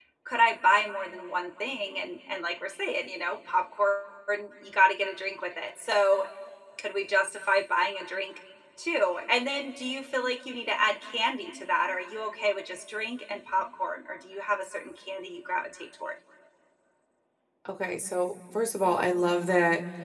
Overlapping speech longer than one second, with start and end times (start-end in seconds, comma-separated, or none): none